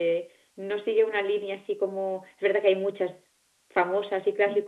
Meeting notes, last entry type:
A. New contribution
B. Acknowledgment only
B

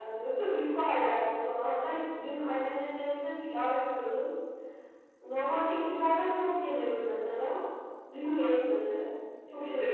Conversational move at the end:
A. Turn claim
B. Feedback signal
A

